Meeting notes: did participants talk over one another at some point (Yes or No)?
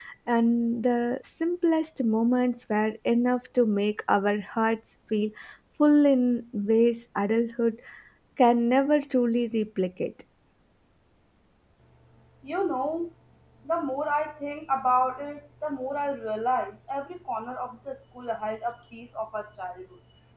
No